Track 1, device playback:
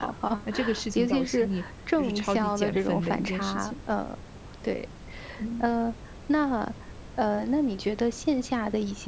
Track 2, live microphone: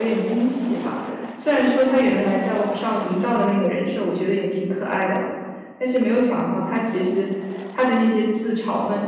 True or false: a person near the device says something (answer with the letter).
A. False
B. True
B